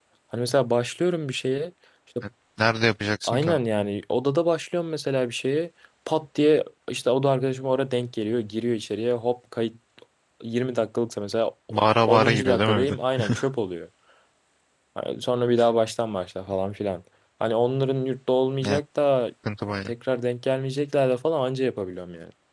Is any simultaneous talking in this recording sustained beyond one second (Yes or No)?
Yes